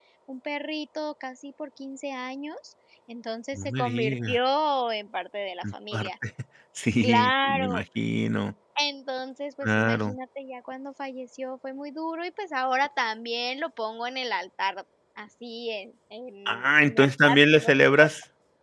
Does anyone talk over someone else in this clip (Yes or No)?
Yes